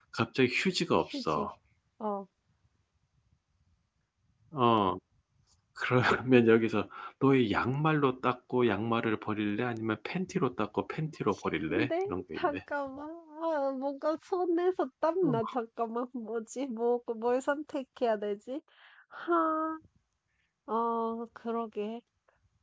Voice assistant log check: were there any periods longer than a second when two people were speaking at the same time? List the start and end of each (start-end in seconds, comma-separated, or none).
11.3-12.6